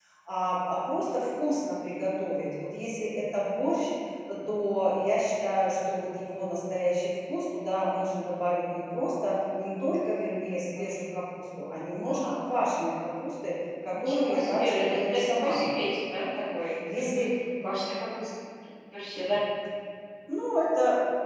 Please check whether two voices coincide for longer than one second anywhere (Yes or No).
Yes